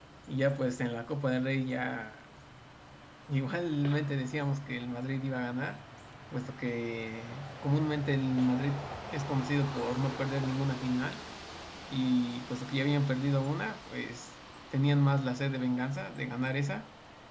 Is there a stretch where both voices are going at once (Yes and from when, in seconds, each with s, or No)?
No